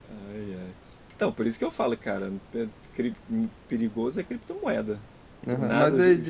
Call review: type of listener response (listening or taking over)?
taking over